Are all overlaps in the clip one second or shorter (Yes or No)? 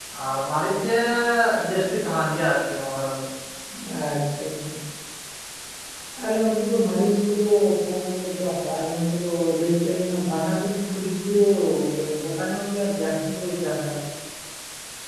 Yes